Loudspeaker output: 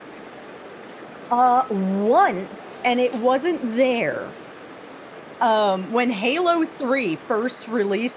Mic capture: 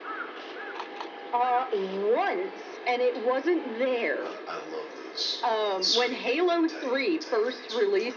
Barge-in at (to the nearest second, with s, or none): 4 s